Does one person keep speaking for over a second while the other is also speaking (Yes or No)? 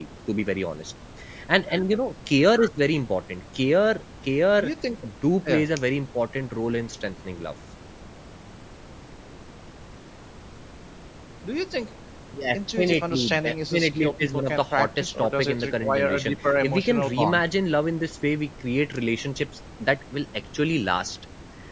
Yes